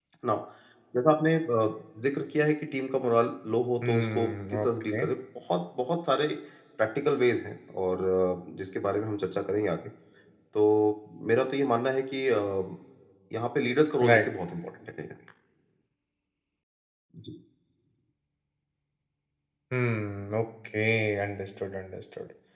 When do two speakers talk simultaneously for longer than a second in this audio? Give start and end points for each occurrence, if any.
3.8-5.0

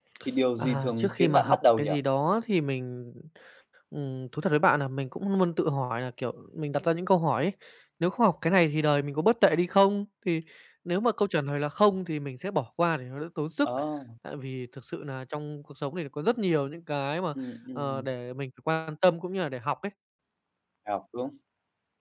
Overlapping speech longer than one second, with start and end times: 0.6-1.9

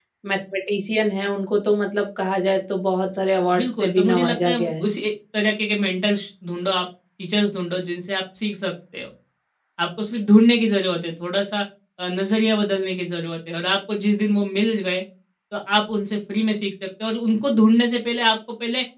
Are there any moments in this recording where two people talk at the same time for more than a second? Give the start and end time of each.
3.5-4.9

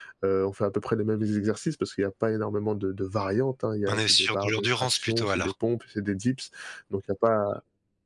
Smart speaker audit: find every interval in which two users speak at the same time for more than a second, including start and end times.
3.9-5.5

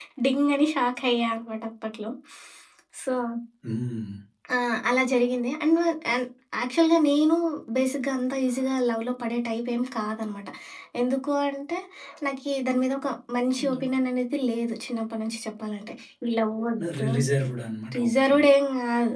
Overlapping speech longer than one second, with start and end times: none

